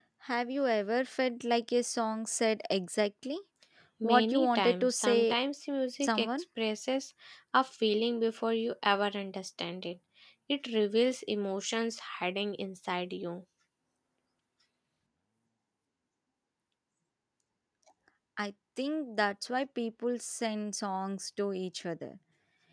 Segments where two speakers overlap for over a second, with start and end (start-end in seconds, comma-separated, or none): 4.0-5.3